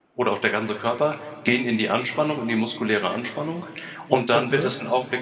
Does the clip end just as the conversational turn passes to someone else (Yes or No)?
No